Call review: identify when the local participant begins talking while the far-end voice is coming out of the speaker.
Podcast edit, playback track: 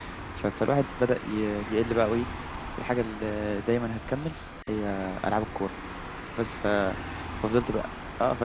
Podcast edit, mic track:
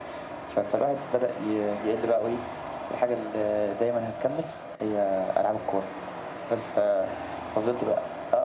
none

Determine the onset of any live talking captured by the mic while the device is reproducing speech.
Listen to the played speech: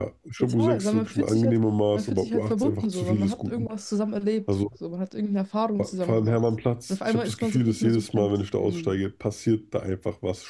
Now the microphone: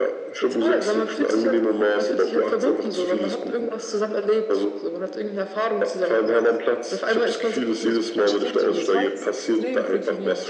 8.3 s

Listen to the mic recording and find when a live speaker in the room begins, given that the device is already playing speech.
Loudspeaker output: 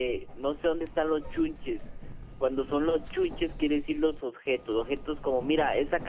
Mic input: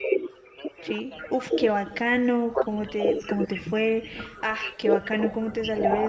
0.8 s

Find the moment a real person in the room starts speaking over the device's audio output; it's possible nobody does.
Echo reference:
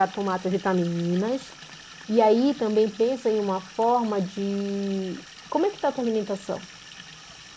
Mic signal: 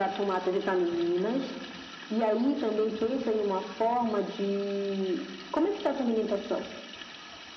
none

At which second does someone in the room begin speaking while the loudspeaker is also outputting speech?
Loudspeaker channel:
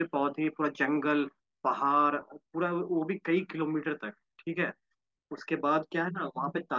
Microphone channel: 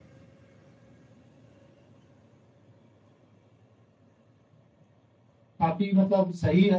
5.6 s

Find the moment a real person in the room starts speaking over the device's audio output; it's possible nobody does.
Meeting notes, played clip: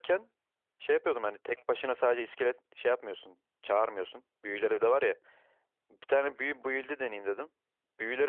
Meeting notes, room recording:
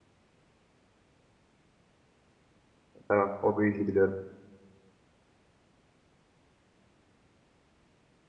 3.1 s

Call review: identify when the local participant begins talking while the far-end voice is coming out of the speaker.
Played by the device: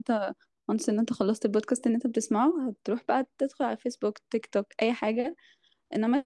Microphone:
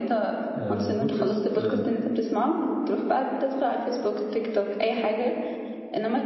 0.5 s

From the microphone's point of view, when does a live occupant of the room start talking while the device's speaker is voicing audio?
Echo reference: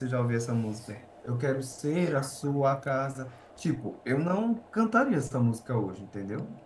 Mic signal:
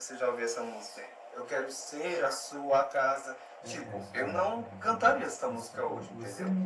3.6 s

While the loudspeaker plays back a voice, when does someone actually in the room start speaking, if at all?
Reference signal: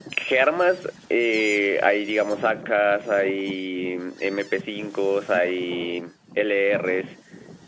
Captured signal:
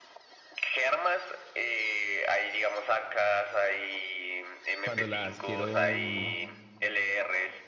4.8 s

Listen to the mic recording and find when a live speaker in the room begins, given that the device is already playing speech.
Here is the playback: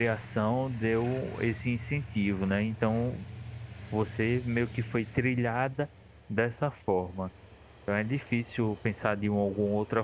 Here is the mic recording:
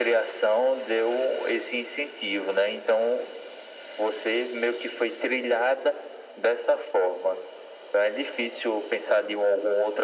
none

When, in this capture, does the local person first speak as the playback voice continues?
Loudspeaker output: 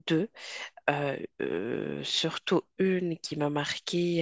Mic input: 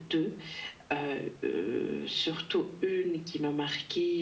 none

